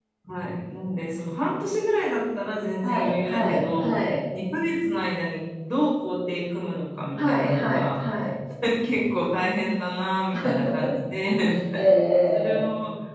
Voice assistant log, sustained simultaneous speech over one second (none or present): present